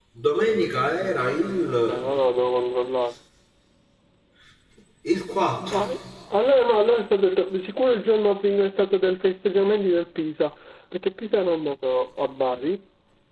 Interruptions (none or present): none